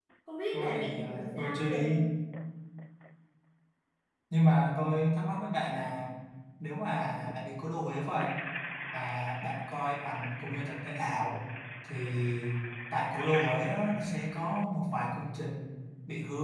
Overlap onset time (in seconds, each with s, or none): 0.5 s